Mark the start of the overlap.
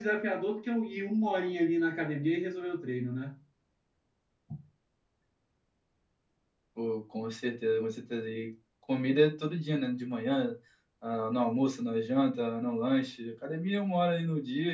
none

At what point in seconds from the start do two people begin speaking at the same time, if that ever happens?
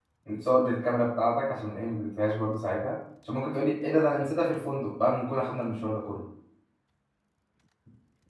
none

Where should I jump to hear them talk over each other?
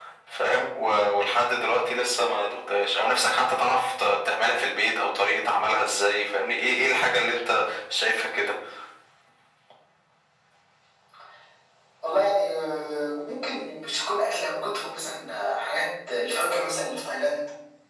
none

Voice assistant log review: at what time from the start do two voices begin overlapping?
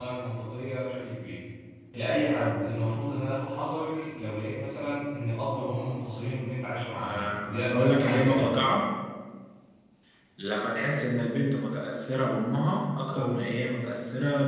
7 s

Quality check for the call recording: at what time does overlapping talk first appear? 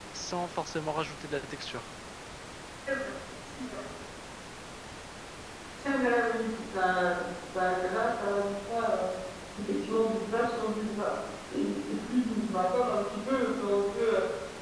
none

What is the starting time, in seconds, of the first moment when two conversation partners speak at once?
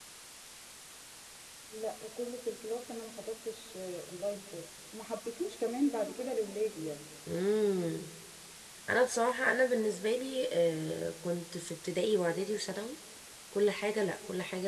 none

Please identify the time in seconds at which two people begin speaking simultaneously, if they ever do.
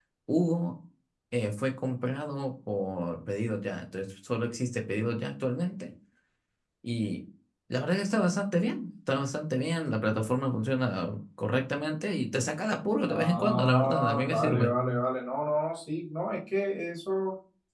13 s

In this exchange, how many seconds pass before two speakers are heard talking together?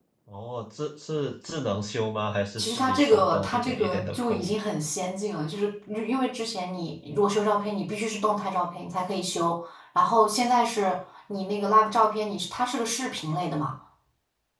3 s

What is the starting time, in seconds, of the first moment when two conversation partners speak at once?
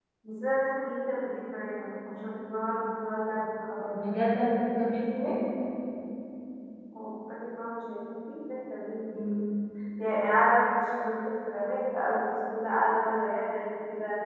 none

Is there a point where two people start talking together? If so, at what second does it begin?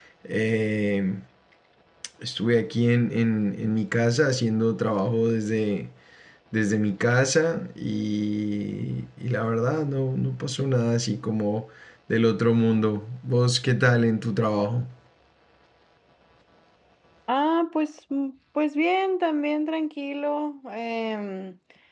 none

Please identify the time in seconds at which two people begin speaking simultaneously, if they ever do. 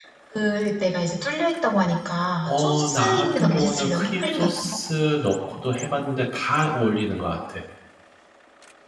2 s

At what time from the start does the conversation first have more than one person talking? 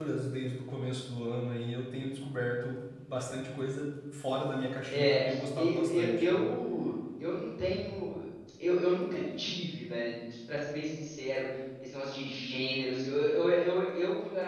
5 s

